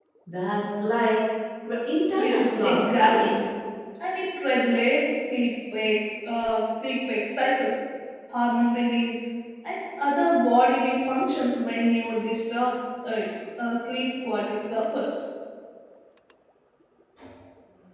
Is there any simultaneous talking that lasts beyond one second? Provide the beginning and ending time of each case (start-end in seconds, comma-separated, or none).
2.2-3.4